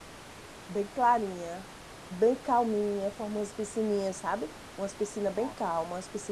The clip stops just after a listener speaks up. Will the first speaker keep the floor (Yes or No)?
Yes